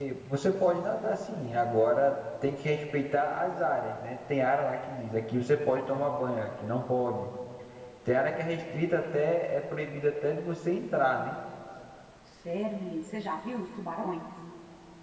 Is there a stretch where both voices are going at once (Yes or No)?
No